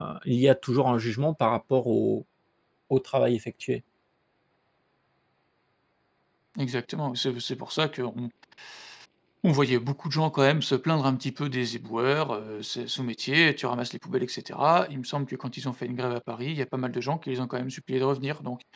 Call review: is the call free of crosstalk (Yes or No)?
Yes